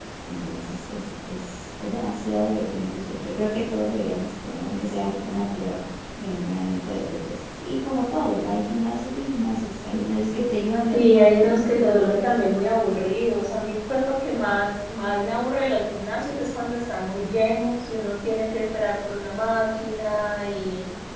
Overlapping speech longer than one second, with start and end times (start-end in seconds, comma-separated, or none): 10.9-12.3